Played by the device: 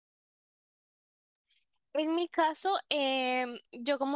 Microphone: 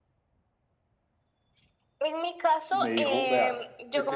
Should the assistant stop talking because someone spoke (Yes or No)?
Yes